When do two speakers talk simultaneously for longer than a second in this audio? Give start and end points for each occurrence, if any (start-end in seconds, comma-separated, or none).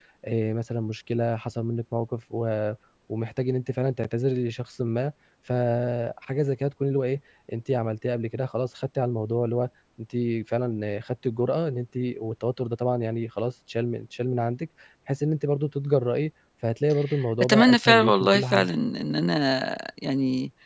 17.4-18.7